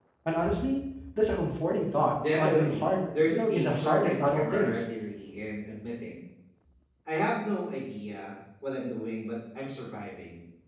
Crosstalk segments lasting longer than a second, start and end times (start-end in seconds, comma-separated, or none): 2.4-4.7